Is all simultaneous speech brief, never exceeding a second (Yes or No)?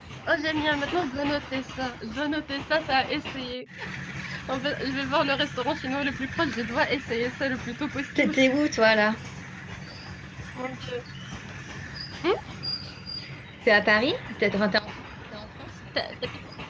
Yes